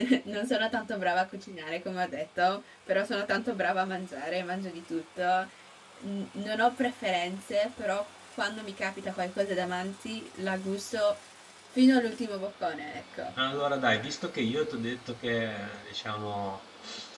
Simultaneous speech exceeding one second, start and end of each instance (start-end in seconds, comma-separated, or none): none